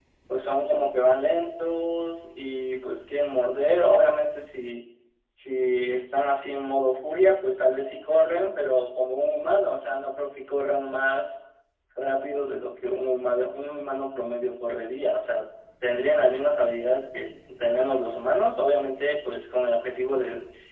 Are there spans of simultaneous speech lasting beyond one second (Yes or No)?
No